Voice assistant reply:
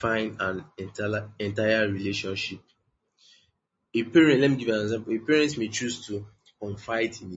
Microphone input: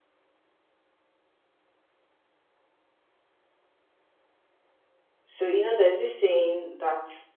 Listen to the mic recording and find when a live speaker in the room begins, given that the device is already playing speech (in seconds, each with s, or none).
5.2 s